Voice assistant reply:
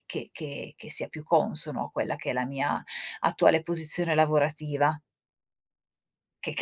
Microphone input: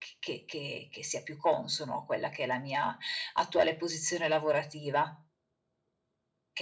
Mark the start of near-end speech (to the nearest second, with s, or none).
none